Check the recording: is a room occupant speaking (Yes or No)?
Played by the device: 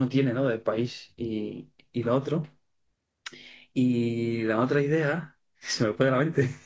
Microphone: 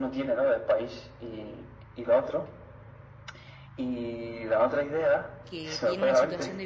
Yes